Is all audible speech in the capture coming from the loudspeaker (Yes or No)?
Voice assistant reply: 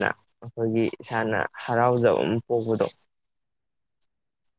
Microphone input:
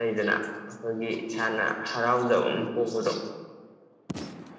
Yes